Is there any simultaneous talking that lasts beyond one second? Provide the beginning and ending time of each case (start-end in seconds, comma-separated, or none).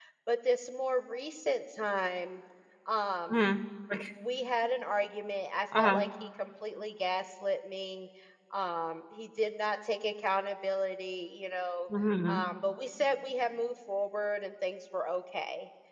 none